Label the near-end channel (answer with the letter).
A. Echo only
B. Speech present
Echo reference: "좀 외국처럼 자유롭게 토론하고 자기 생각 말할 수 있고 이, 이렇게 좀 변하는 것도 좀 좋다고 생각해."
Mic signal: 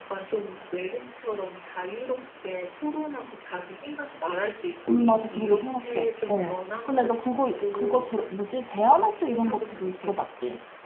B